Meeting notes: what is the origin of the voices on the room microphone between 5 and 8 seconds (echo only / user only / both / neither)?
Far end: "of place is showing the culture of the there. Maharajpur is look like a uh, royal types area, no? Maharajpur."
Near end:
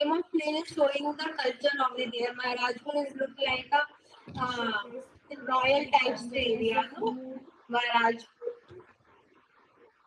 both